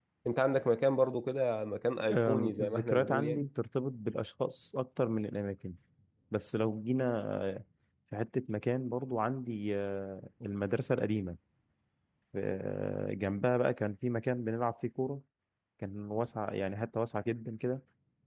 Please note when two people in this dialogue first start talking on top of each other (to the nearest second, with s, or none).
2 s